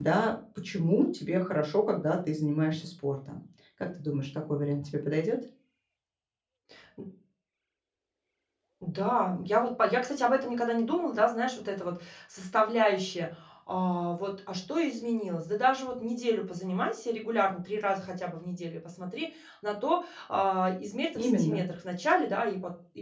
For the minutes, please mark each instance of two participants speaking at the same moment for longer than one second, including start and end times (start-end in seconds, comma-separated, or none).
none